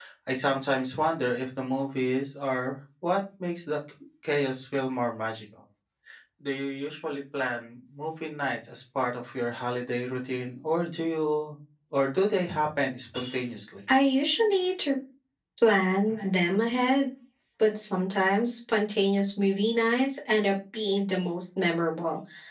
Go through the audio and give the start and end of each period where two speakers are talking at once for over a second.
none

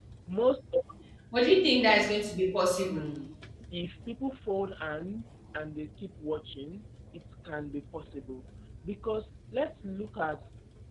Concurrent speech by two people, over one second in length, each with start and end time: none

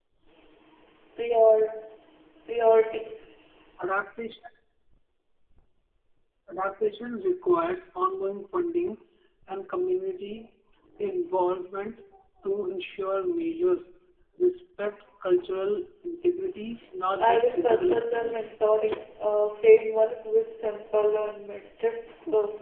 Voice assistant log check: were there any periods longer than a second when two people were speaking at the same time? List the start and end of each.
17.2-18.5

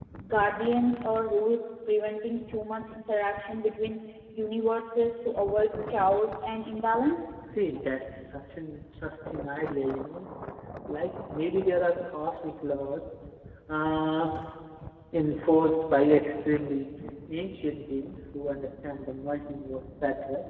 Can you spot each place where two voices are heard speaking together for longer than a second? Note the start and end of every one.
none

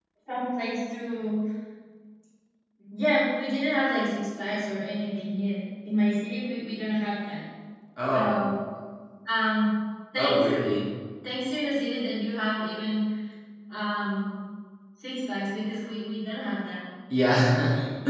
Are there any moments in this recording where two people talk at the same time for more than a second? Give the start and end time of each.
none

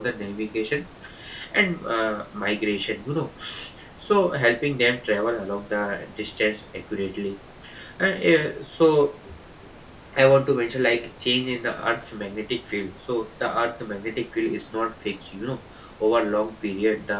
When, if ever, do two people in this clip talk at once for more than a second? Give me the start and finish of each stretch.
none

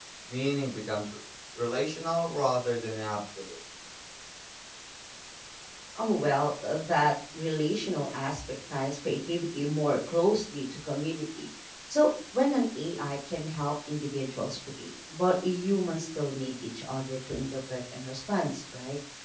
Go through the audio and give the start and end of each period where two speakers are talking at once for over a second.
none

